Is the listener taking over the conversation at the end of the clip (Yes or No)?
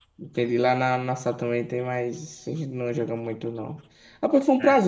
No